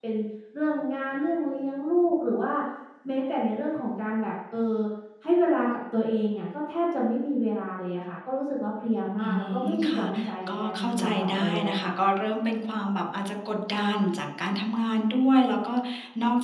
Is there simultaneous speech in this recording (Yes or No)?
Yes